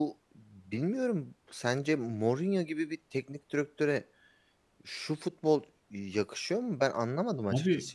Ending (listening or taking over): taking over